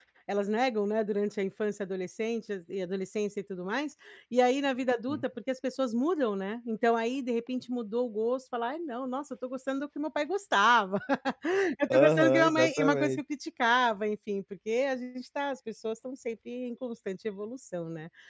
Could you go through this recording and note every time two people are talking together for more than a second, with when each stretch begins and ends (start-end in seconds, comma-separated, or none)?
11.9-13.2